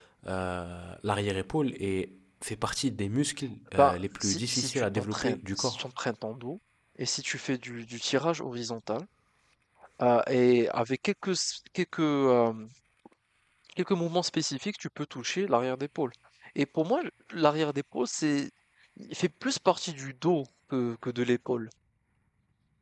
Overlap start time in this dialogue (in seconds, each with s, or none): 3.7 s